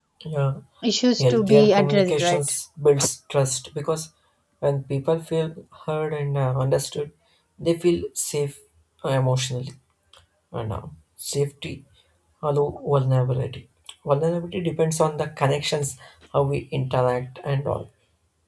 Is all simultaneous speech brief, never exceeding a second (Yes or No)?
No